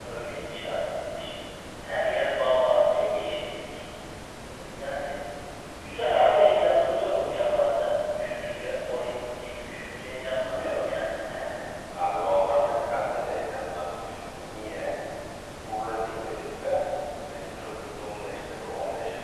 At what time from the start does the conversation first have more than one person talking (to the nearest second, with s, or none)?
none